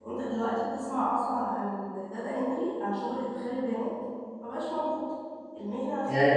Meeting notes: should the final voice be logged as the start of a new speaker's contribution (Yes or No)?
Yes